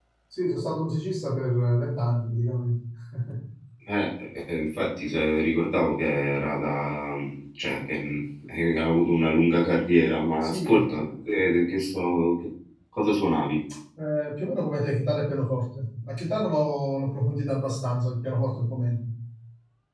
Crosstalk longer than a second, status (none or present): none